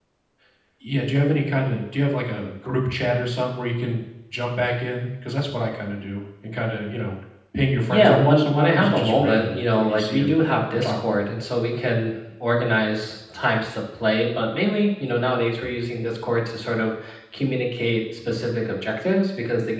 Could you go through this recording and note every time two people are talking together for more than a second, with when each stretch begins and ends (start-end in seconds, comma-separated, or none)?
7.9-10.3